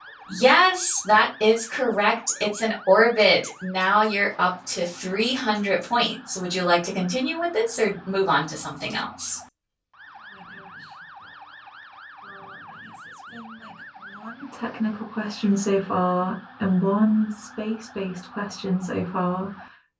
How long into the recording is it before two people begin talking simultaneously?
none

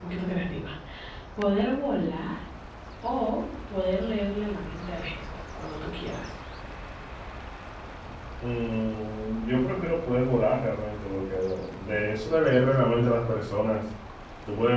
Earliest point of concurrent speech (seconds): none

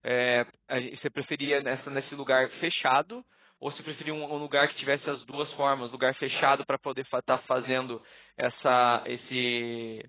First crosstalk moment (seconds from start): none

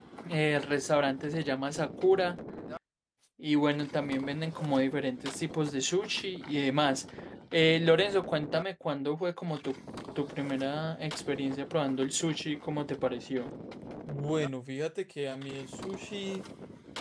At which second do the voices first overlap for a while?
none

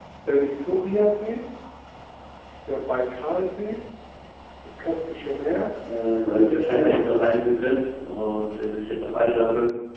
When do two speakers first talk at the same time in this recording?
6 s

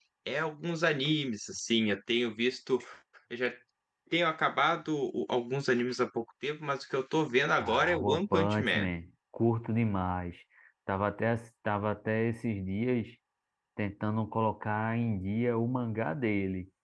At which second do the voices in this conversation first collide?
8 s

